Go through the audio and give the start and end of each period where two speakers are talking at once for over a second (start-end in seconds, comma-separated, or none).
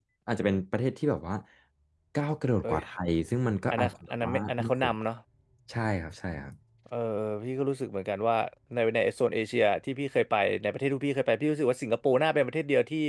3.7-4.9